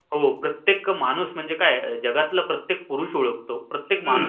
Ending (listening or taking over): taking over